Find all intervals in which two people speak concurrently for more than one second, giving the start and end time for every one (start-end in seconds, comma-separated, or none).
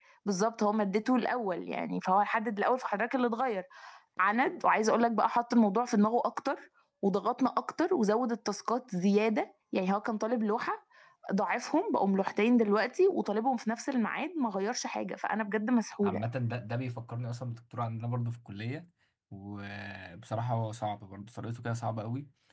none